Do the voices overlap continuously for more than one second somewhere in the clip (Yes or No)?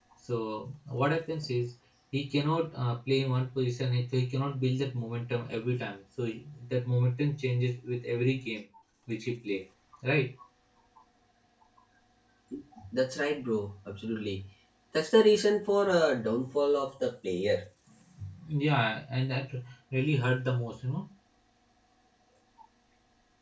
No